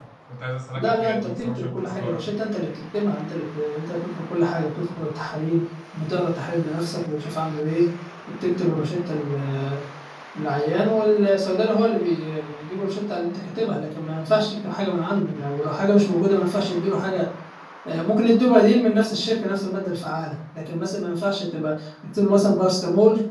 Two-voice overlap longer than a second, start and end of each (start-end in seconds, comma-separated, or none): 0.8-2.2